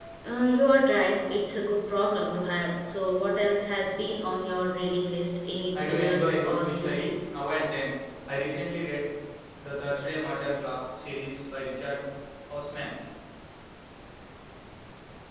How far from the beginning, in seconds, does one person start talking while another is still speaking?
6 s

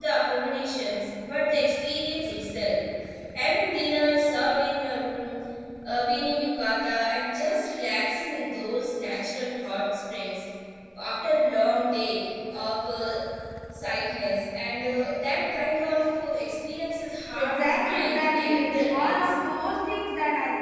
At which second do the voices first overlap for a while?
17 s

